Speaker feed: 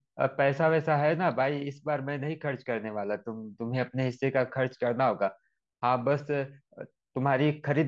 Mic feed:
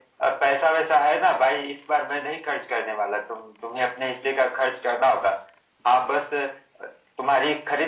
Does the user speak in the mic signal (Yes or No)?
No